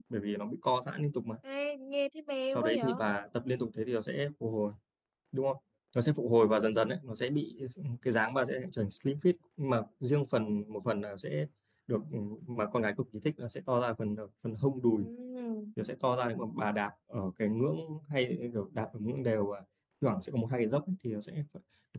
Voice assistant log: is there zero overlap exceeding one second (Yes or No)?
Yes